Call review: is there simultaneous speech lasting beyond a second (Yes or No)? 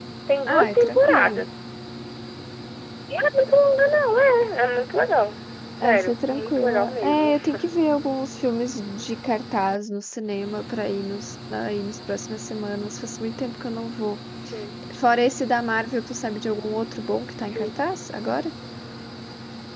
Yes